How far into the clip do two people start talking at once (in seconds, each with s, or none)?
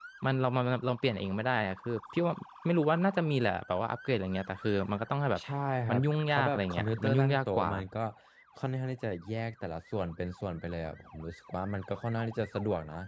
5.9 s